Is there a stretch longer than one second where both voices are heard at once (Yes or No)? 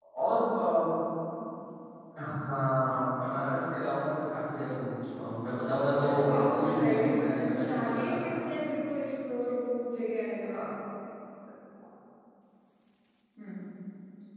Yes